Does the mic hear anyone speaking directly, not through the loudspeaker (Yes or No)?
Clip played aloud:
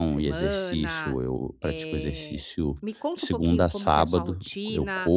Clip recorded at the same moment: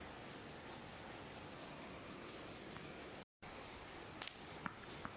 No